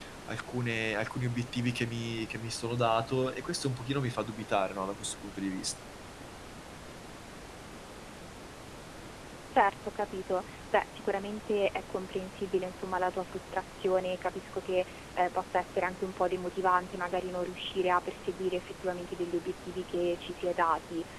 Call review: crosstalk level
none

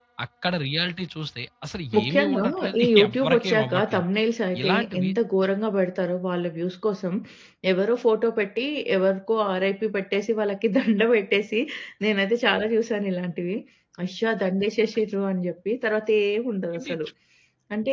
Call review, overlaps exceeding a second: present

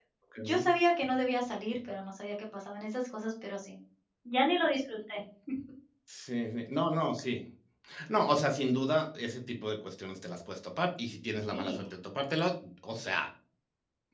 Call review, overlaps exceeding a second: none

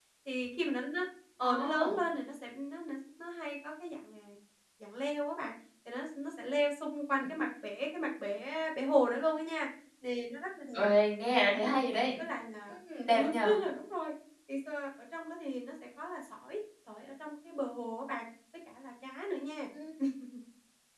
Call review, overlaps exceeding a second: none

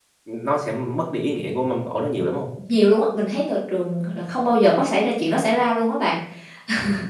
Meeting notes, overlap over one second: none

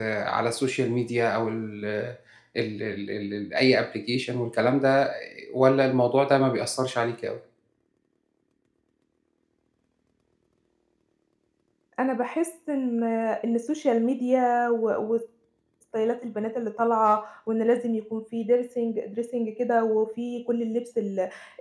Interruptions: none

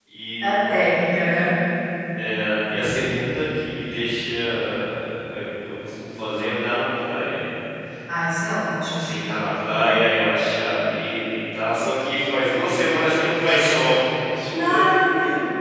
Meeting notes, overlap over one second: none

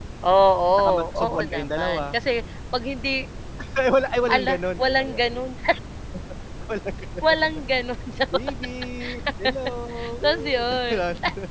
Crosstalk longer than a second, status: present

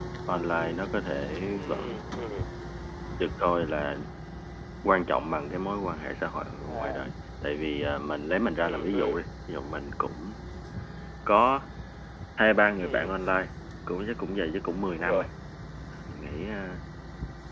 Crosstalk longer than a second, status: none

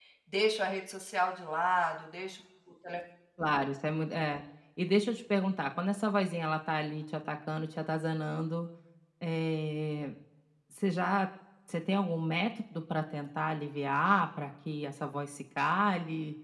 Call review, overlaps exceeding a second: none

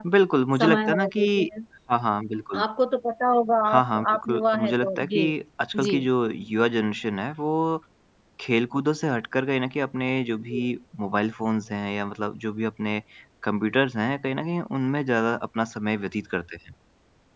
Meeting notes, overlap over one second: present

